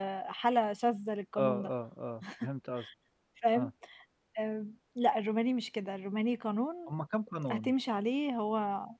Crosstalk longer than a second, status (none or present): none